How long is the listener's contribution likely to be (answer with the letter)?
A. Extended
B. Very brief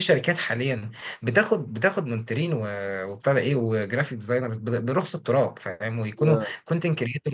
B